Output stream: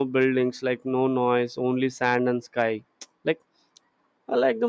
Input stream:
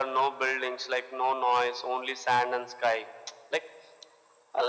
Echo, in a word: present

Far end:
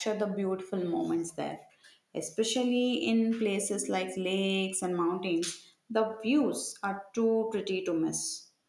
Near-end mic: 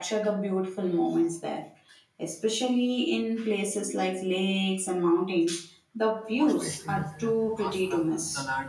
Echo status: present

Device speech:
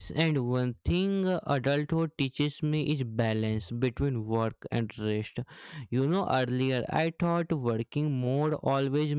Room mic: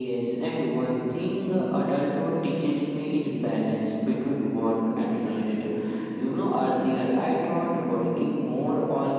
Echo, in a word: present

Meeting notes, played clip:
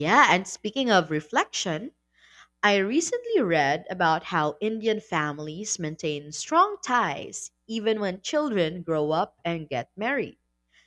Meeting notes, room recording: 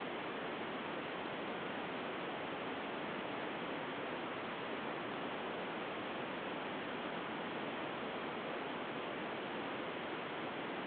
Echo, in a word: none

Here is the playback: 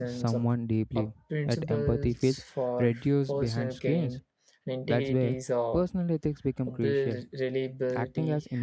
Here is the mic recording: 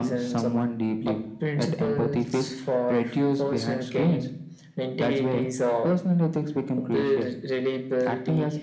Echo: present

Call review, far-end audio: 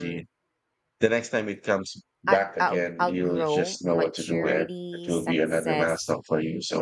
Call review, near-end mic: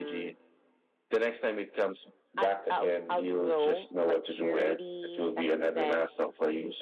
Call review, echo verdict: present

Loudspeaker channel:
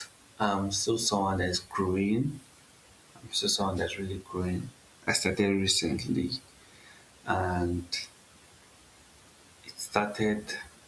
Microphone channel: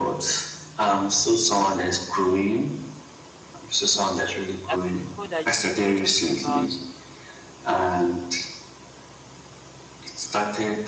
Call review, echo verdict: present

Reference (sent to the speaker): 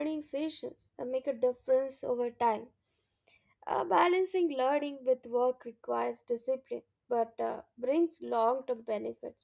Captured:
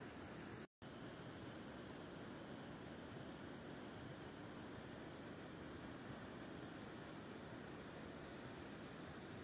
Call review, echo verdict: none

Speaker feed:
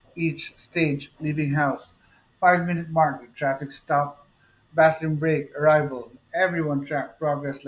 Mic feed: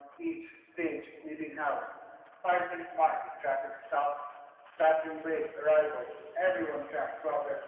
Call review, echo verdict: present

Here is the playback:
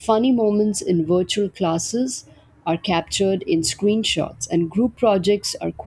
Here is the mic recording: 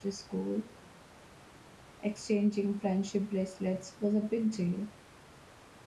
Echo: none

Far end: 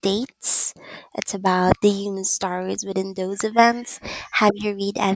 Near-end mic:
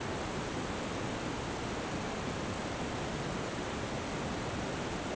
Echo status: none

